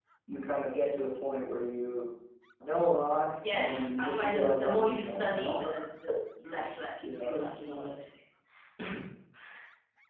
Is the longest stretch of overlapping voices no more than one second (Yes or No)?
No